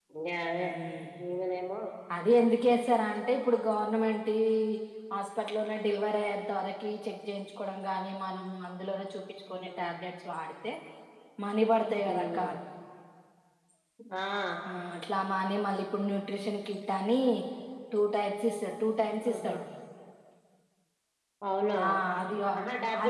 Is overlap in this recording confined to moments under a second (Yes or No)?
Yes